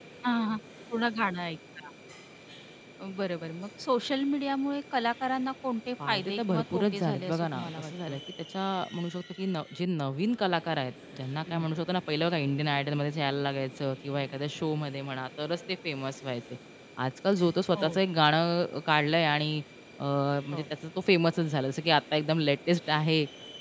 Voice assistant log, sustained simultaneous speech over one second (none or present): present